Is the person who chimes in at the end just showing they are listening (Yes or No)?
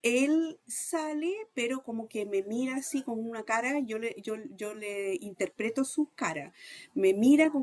Yes